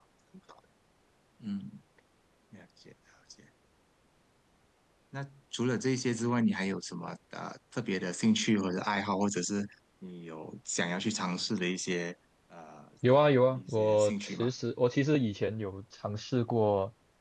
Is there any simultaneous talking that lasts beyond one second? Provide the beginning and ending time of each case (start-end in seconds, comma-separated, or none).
13.1-14.5